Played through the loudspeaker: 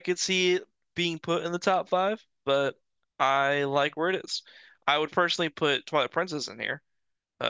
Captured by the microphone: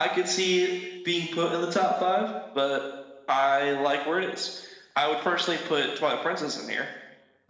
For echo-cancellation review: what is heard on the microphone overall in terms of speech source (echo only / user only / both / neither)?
echo only